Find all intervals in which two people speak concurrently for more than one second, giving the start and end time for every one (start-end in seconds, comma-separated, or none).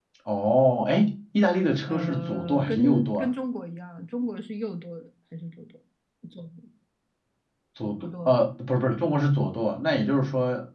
1.9-3.3